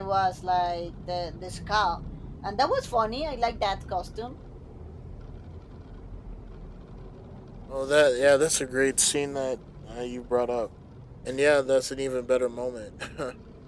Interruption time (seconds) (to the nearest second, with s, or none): none